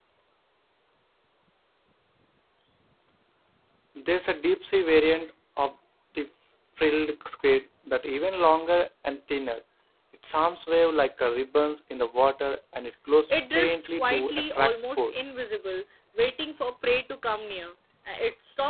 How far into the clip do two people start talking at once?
13.6 s

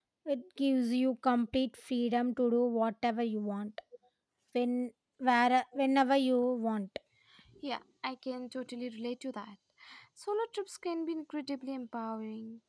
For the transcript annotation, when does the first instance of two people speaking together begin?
none

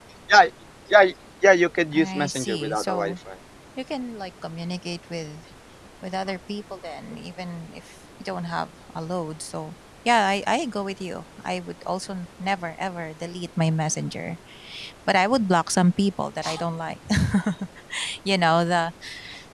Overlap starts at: 1.9 s

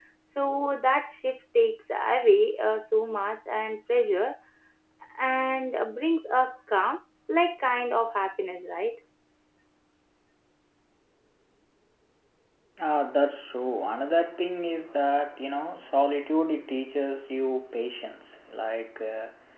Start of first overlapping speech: none

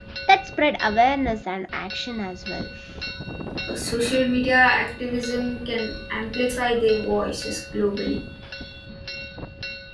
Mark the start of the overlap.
none

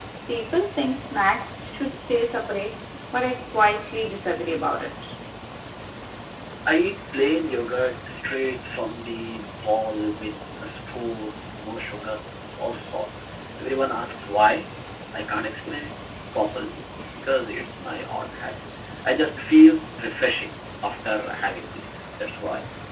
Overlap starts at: none

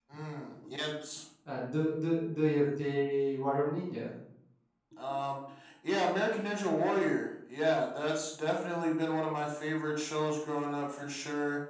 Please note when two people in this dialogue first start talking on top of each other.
none

